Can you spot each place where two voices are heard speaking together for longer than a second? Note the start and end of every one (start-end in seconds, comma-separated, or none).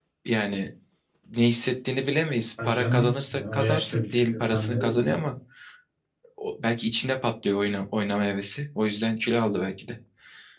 2.6-5.2